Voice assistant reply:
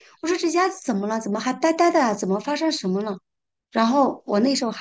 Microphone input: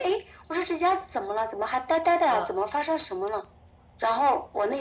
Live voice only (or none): 嗯